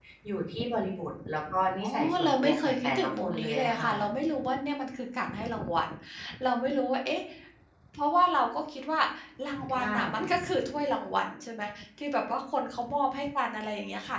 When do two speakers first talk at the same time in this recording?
2 s

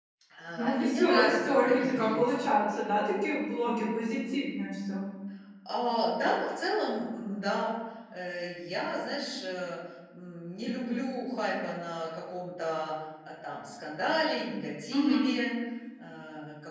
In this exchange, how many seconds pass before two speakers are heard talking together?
1 s

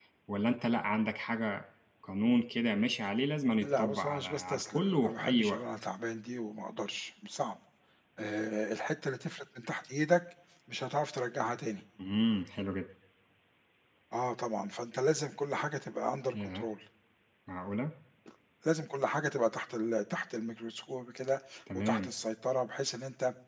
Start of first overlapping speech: 4 s

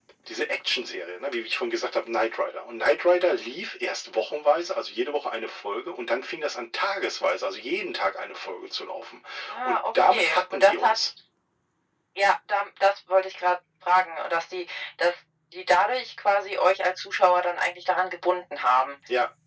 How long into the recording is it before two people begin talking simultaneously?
10 s

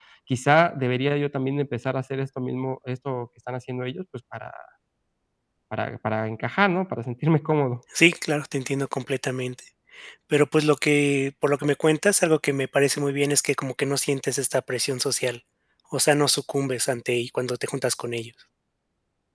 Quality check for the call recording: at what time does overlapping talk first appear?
none

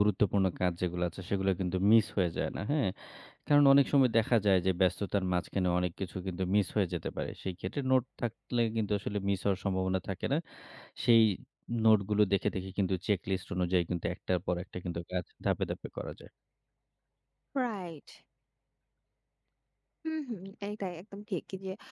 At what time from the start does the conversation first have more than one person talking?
none

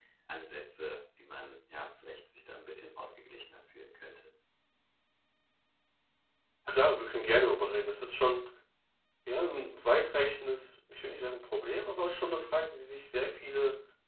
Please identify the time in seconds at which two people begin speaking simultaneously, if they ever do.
none

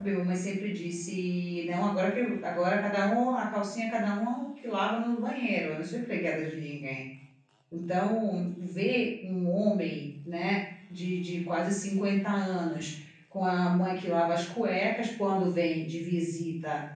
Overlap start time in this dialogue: none

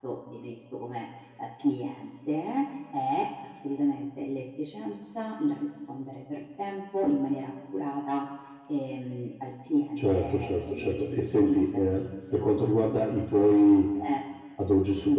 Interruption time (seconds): 10 s

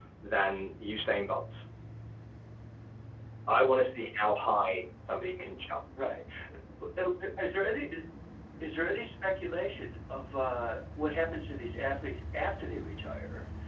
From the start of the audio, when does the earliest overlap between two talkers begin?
none

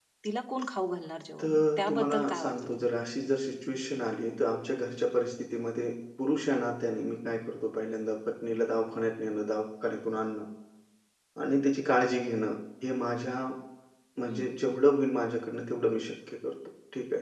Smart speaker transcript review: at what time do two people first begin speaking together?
1 s

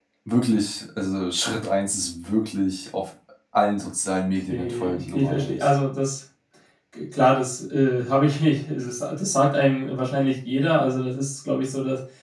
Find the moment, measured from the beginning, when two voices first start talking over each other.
4 s

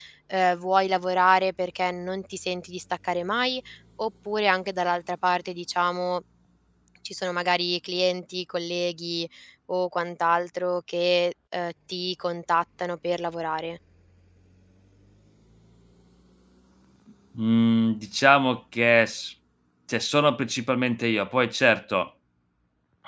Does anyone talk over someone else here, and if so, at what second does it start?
none

